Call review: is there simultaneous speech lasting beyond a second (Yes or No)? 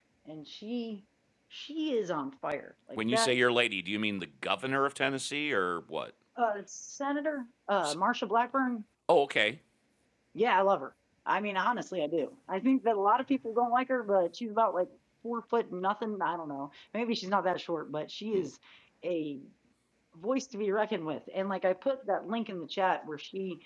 No